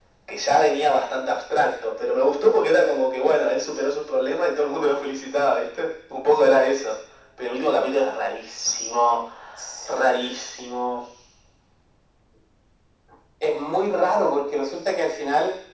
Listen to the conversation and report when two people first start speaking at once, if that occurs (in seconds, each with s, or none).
none